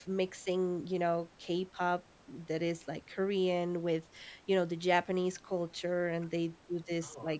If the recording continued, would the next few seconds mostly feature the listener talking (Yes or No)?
No